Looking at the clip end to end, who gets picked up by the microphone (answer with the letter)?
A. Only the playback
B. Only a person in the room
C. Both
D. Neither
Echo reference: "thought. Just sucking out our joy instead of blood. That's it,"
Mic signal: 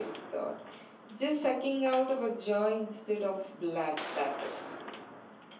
A